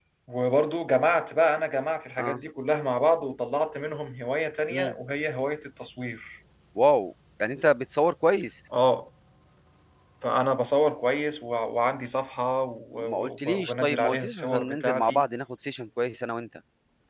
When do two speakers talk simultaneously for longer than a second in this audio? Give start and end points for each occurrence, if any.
12.9-15.2

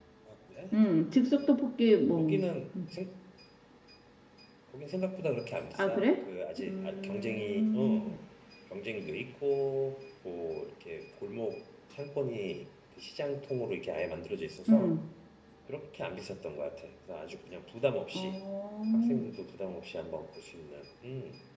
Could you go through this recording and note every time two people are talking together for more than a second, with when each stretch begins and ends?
6.7-8.1

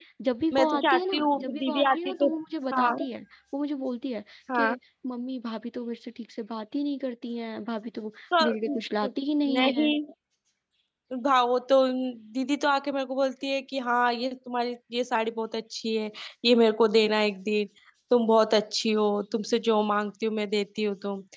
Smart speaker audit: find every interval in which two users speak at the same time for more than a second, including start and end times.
0.5-2.3

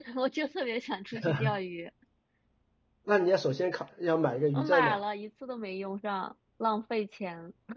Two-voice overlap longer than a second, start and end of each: none

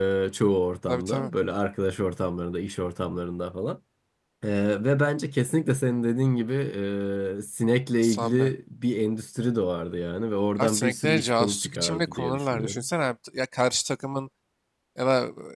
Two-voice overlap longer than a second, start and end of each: 10.6-12.8

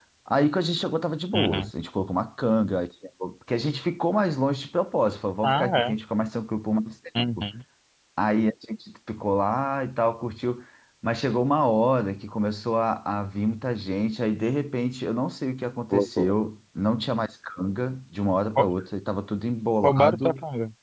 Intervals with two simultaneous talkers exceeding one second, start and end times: none

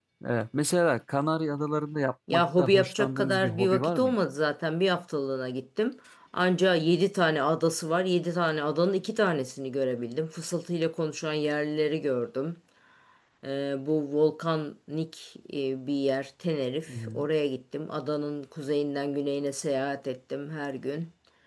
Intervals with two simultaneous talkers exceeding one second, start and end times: 2.3-4.2

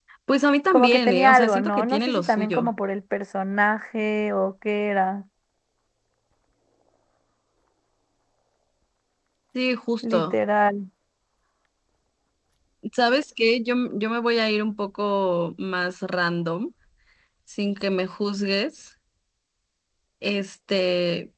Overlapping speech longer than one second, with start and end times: 0.7-2.7

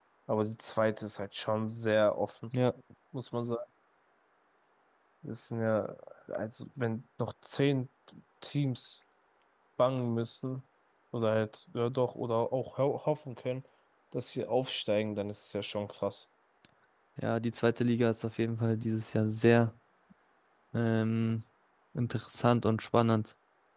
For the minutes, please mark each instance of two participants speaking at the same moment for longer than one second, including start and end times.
none

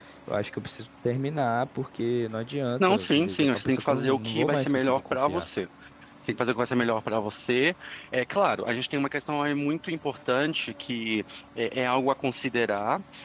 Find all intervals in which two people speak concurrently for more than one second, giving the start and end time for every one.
2.8-5.5

